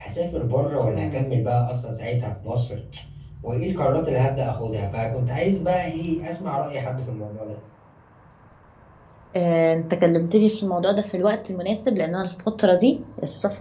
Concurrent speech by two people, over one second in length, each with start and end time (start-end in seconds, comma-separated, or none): none